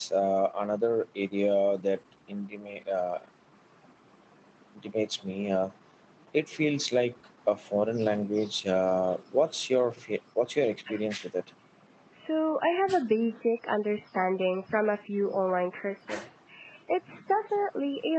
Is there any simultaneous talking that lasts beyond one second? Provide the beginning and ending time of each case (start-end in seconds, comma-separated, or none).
none